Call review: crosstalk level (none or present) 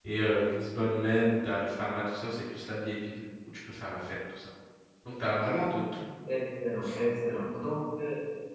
none